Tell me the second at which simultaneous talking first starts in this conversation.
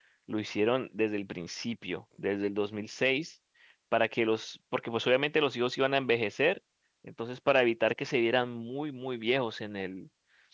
none

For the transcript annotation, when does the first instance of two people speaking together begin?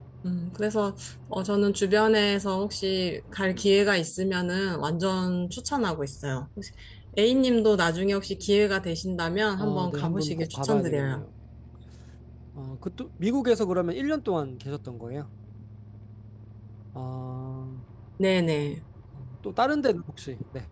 9.6 s

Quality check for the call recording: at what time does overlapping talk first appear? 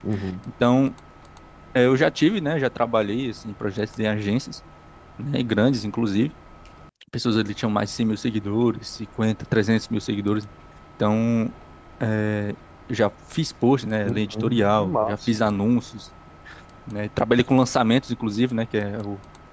14.1 s

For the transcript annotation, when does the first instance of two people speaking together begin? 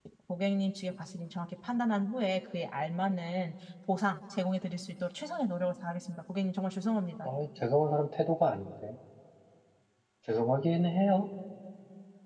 none

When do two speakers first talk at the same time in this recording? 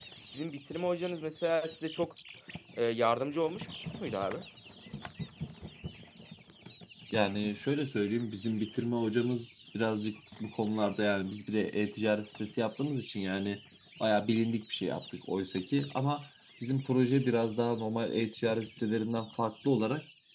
none

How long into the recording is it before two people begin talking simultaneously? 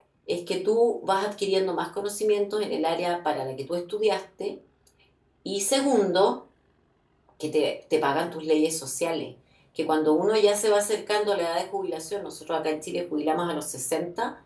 none

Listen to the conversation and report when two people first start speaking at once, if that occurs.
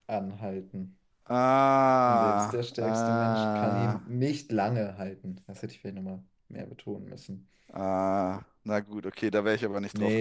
2.0 s

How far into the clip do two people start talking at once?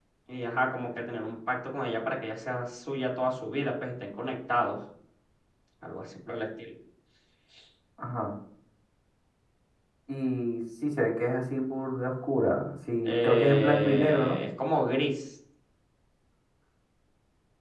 13.1 s

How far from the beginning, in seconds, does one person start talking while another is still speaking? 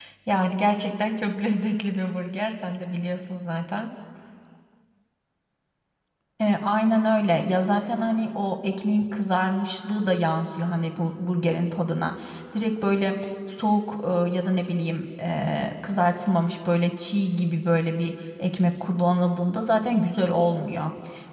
none

